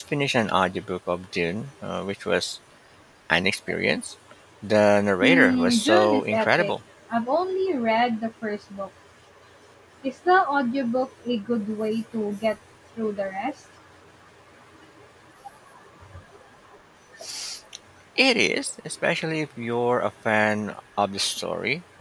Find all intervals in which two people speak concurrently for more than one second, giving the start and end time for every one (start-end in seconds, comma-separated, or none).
5.2-6.7